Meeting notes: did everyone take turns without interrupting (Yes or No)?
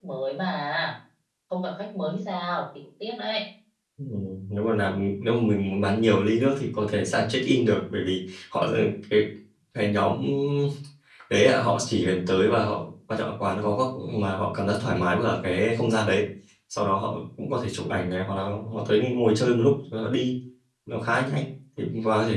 Yes